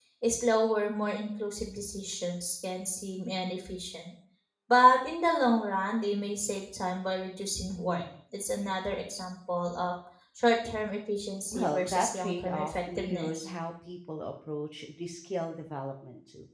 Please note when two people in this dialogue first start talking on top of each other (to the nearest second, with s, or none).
12 s